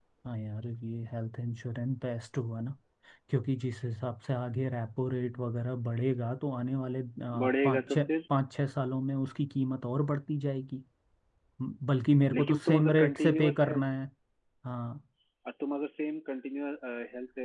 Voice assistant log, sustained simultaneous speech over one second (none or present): present